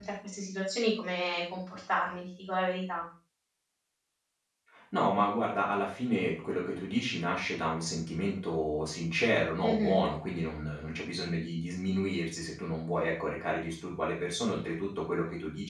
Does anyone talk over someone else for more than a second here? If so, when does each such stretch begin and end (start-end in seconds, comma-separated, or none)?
none